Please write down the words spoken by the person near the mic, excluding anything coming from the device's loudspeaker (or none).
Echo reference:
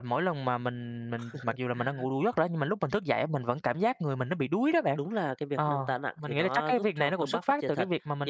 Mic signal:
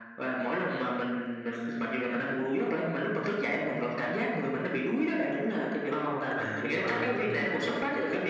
À! Vậy à, ừm.